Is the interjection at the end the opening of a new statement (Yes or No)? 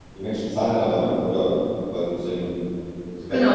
Yes